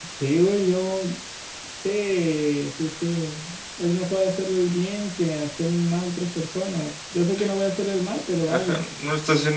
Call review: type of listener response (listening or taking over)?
taking over